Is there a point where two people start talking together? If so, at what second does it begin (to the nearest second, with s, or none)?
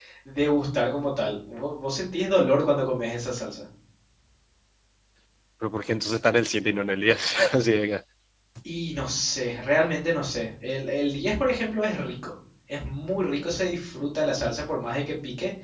none